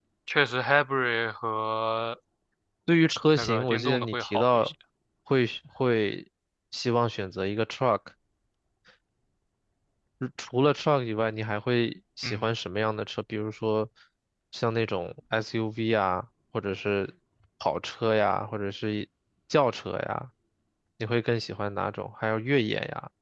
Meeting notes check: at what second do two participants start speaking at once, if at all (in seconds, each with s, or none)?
3.4 s